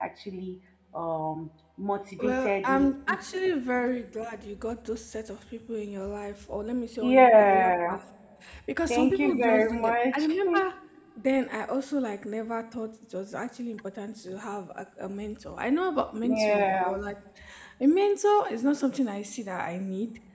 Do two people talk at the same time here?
Yes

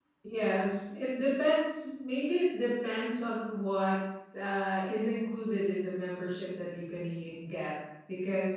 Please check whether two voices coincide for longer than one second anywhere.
No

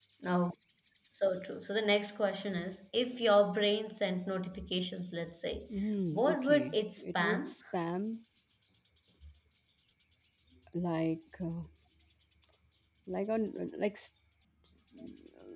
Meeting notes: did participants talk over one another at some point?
Yes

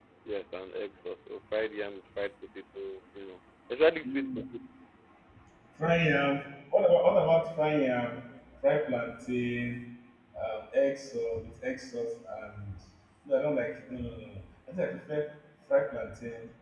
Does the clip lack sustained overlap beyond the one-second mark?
Yes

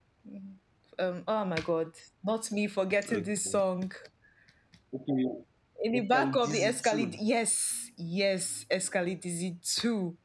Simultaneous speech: Yes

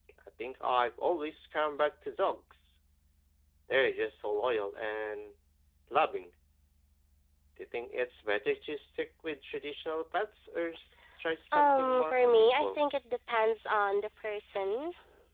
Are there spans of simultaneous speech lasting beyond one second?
Yes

